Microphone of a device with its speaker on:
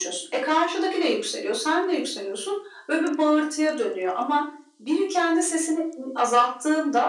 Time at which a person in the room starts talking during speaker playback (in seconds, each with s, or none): none